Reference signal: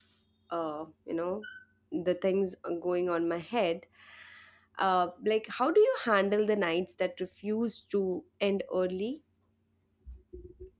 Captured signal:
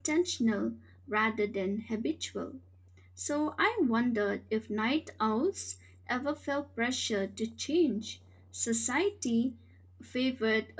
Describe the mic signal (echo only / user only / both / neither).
user only